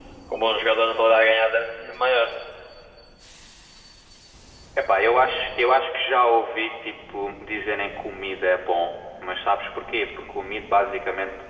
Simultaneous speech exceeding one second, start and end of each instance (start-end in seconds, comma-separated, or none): none